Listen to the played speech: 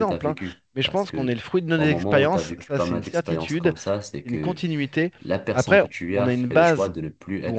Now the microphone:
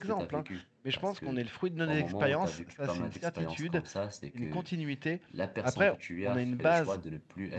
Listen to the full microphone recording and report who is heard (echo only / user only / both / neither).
echo only